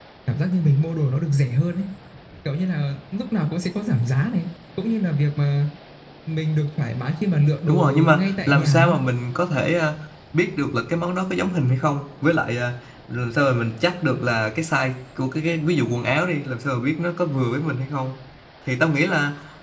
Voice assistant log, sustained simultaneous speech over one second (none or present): present